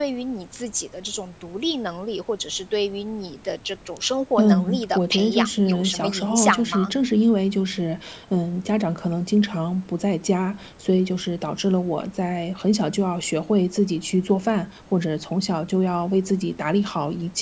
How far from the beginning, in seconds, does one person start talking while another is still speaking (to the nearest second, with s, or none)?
4 s